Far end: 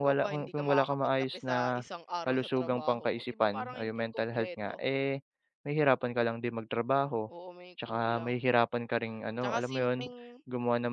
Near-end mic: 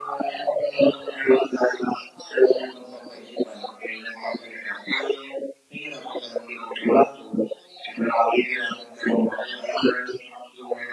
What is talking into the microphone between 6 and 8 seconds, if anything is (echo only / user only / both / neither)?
echo only